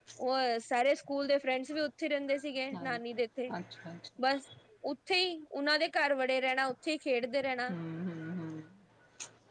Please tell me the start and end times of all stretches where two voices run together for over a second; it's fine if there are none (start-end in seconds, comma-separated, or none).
none